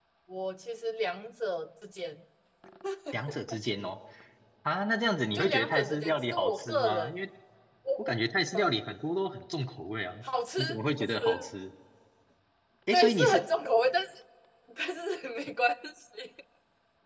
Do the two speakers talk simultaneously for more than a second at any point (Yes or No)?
Yes